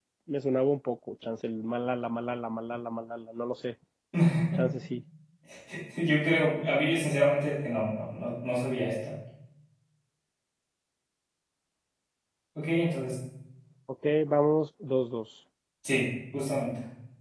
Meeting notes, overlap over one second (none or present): none